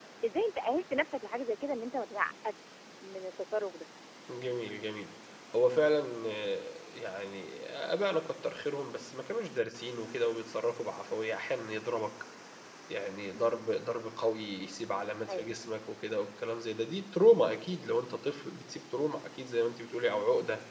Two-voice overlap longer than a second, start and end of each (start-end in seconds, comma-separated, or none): none